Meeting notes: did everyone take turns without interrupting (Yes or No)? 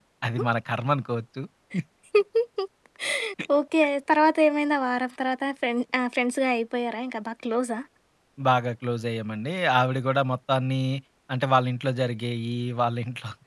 Yes